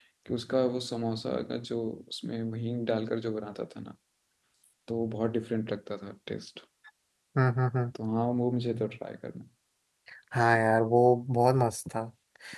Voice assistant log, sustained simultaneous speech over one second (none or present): none